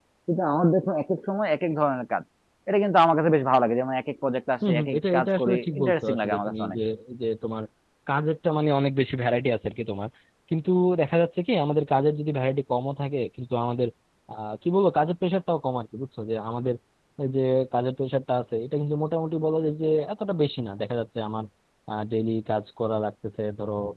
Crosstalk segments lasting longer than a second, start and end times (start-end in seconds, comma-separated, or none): 4.7-6.8